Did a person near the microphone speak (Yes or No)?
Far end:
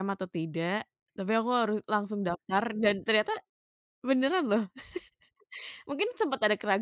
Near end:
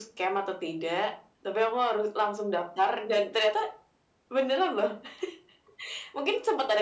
No